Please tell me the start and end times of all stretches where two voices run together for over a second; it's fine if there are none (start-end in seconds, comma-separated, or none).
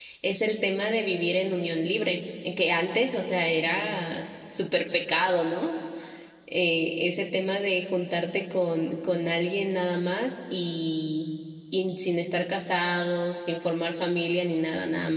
none